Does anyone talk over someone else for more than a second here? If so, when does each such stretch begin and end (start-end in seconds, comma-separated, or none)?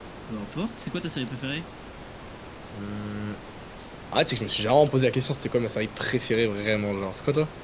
none